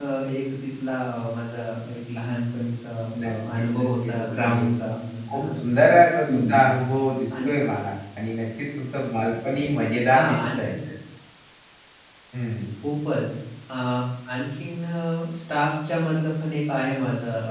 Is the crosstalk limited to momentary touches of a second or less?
No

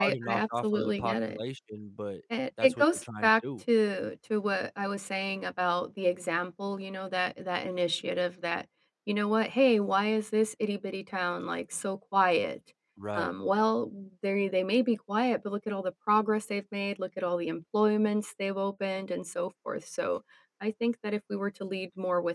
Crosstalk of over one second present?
Yes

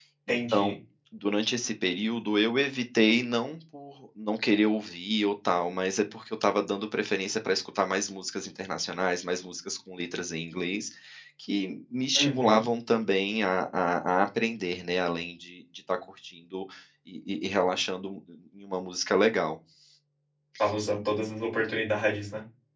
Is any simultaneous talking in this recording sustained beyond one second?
No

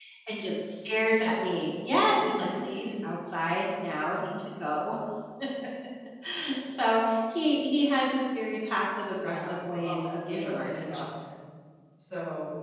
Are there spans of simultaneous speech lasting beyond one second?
Yes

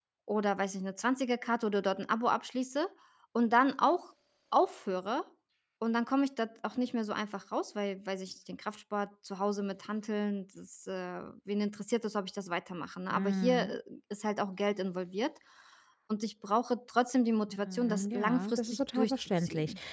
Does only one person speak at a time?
No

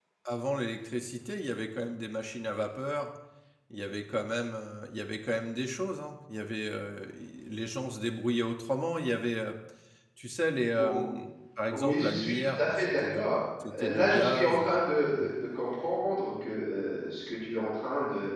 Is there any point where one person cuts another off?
Yes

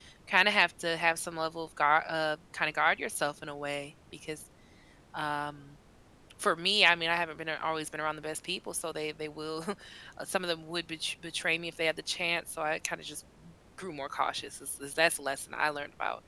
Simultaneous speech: No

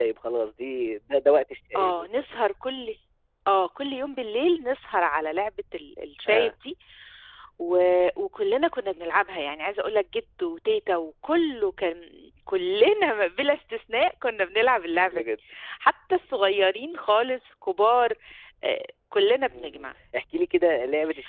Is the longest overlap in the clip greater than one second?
No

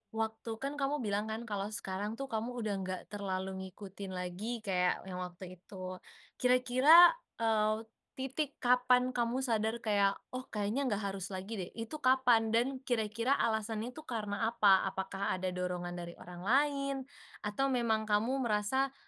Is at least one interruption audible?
No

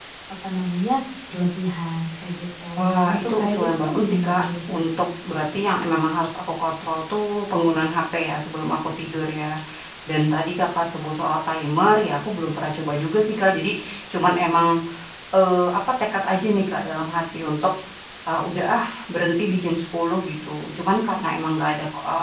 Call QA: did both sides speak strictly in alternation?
No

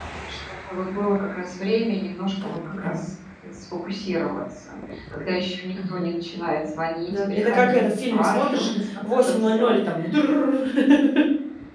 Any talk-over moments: Yes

